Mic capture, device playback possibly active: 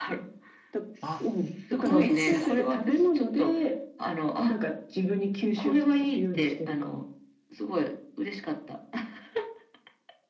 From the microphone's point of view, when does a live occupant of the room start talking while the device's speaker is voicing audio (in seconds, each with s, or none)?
1.0 s